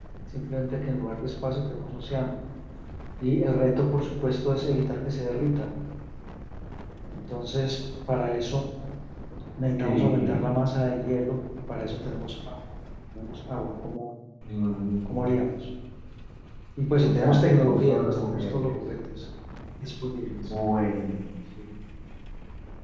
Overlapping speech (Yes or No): Yes